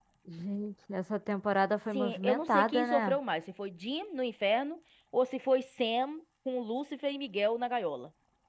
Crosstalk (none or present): present